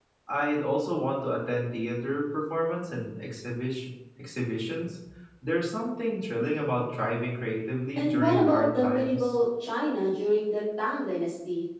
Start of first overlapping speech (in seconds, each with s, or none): 8.0 s